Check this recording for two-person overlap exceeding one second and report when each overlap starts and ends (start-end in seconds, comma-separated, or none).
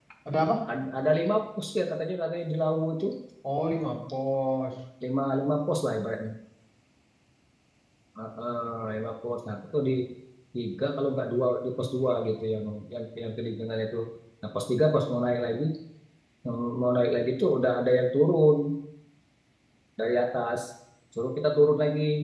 none